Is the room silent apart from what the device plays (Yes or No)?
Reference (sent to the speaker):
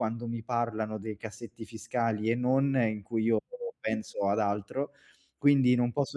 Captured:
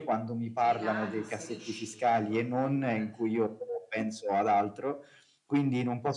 No